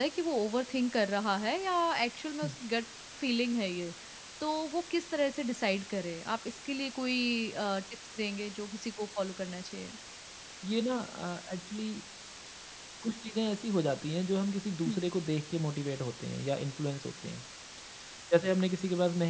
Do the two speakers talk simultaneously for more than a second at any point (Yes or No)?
No